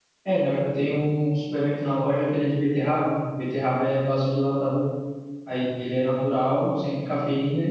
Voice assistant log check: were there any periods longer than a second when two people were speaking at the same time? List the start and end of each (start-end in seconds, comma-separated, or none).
none